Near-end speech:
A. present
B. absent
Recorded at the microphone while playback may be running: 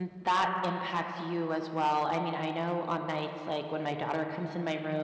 A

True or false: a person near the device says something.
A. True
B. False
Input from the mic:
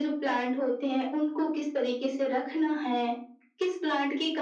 B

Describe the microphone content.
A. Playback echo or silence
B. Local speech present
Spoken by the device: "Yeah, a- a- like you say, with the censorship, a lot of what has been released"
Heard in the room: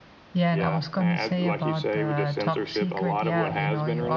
B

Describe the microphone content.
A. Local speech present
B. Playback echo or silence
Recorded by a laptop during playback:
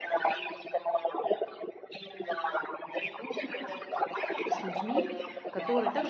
A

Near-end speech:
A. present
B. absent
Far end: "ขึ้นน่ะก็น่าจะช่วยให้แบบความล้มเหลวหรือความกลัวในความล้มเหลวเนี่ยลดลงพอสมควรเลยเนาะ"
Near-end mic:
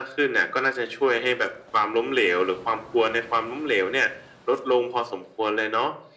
B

